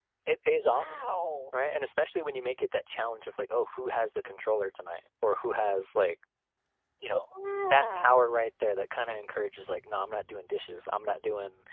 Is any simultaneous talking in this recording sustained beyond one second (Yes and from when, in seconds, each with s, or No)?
No